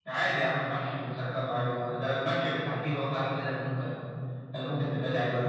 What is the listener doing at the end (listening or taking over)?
taking over